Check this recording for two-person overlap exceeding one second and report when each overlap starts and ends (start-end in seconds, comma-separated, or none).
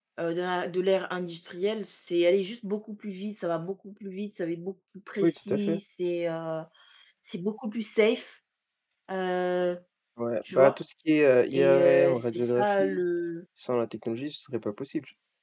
11.5-13.0